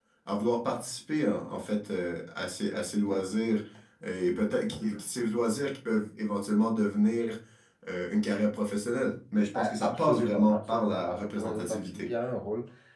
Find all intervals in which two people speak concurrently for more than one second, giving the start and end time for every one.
9.5-12.1

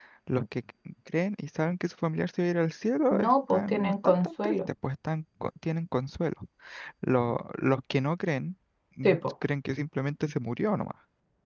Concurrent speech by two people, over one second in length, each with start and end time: 3.1-4.6

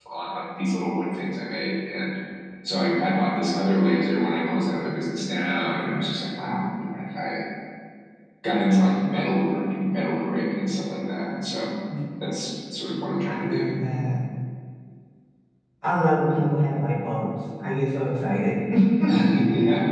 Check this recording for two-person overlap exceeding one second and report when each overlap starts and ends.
none

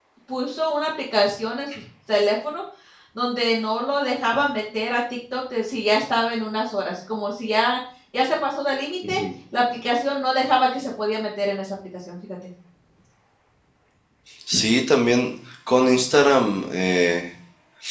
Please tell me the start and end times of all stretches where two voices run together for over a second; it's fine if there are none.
none

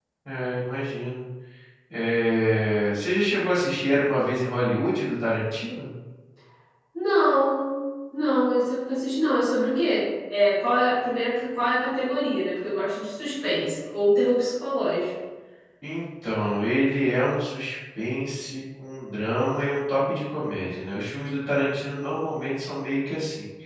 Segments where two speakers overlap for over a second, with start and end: none

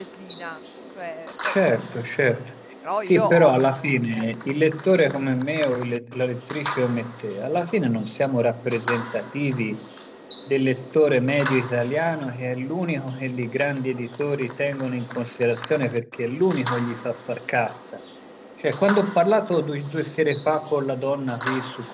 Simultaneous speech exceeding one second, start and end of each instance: 3.1-4.3

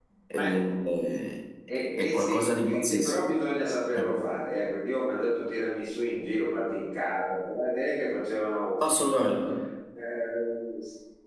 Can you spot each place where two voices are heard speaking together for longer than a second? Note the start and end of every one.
1.9-3.1

